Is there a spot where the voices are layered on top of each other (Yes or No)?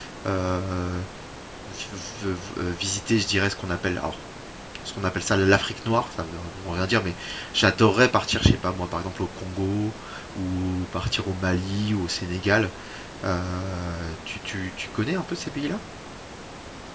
No